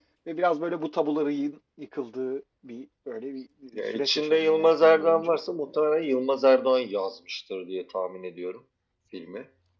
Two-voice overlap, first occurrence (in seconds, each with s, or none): 3.7 s